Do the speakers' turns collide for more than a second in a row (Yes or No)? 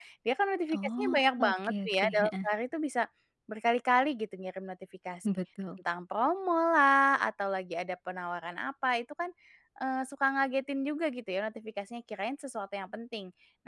Yes